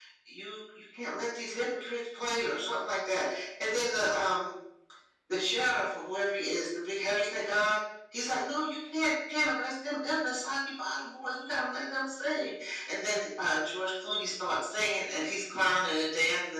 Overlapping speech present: No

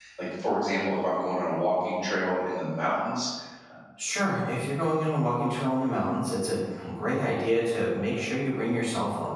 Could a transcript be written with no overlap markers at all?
Yes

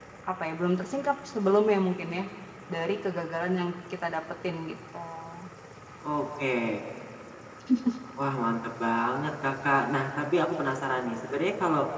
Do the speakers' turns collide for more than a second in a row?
No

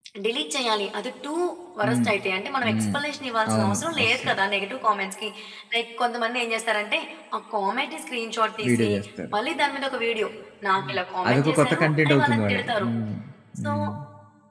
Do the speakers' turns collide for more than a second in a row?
Yes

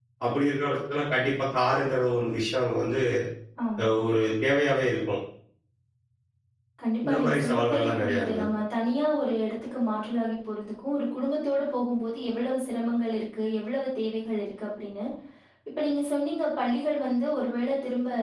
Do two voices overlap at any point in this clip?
Yes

